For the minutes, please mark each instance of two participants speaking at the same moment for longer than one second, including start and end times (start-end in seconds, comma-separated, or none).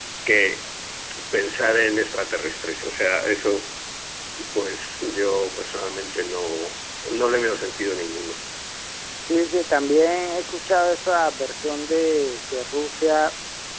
none